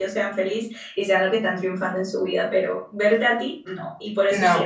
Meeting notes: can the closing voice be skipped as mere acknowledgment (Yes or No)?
Yes